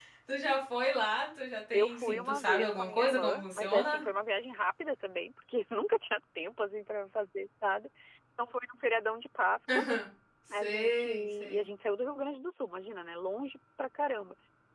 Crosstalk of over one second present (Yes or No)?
Yes